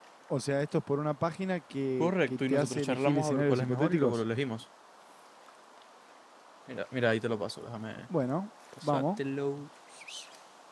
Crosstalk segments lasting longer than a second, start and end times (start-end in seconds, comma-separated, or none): 2.0-4.2